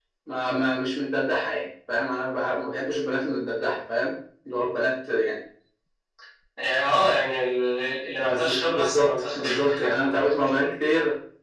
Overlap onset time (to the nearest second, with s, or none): 8 s